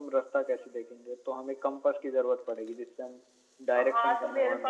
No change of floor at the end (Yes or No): No